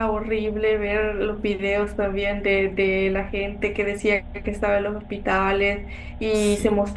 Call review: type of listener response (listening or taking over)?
listening